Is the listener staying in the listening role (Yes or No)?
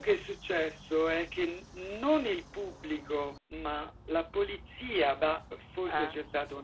Yes